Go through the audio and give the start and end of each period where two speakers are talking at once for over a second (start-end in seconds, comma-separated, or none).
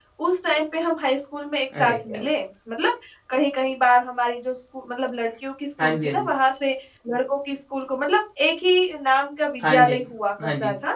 none